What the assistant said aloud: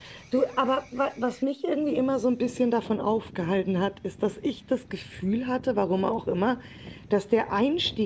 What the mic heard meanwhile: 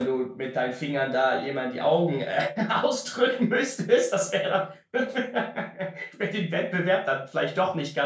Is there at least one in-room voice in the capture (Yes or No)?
Yes